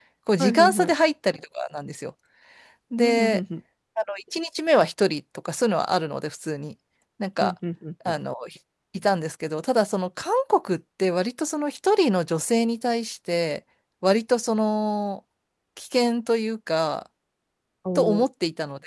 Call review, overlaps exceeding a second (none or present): none